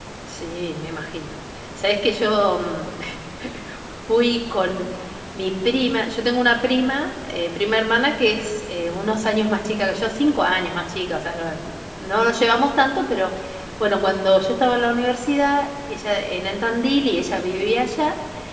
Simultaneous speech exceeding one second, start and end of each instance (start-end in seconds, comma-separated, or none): none